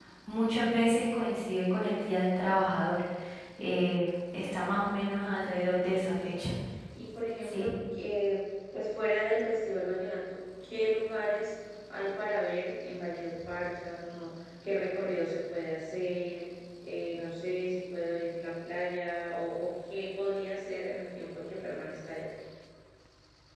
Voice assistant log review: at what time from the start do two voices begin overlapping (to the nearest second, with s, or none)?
5 s